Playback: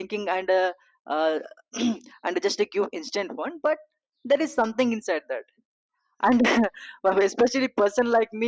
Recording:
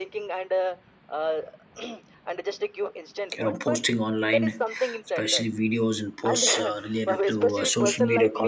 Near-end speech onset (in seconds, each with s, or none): 3.4 s